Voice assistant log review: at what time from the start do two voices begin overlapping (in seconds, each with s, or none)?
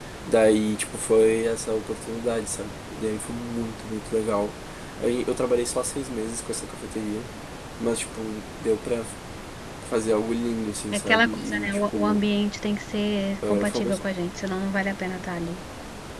10.9 s